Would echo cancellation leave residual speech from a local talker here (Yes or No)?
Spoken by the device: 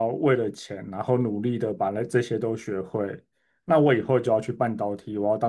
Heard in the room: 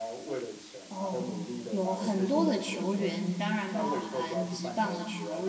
Yes